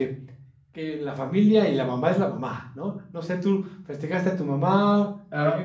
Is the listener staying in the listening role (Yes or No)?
No